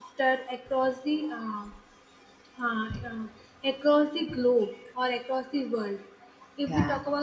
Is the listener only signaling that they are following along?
Yes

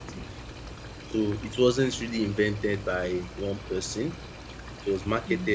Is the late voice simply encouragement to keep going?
Yes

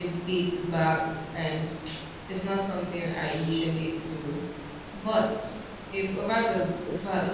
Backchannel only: Yes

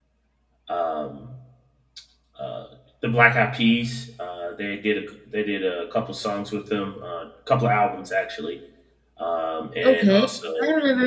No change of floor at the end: No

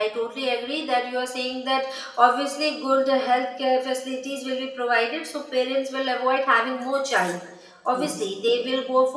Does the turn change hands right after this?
No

